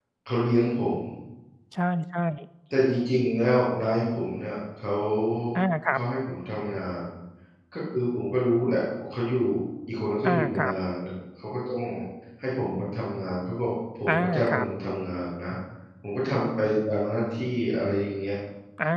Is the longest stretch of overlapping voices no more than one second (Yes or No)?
Yes